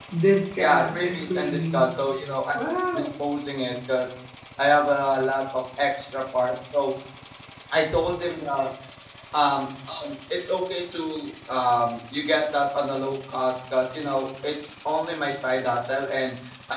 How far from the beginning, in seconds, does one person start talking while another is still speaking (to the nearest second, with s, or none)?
1 s